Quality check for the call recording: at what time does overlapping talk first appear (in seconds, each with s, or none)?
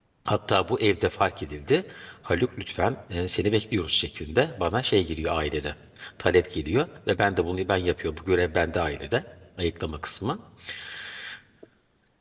none